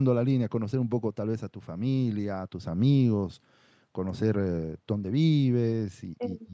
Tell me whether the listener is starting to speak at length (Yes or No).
Yes